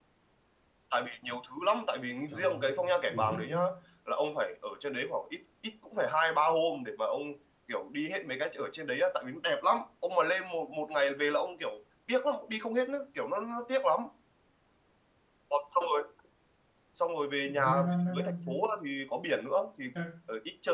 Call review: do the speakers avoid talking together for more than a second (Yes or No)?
No